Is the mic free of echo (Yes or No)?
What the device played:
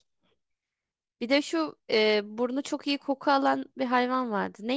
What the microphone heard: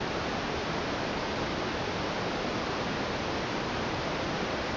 Yes